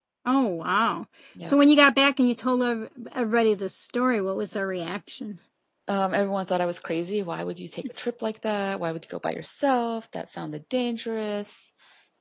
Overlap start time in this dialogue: none

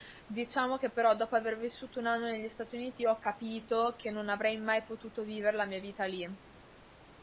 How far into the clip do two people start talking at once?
none

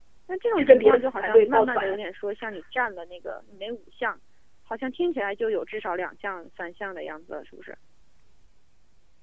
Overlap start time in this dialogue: 1 s

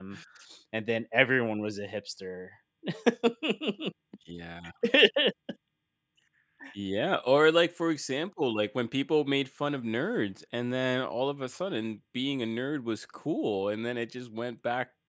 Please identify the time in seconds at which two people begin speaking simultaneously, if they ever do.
none

